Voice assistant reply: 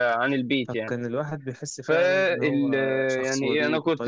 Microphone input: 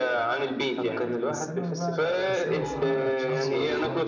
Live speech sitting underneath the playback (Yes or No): Yes